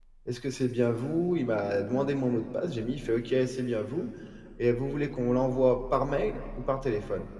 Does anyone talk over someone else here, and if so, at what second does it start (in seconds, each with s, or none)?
none